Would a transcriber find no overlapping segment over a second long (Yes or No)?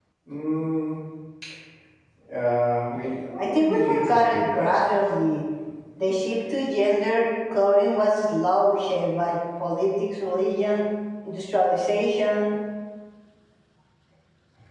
No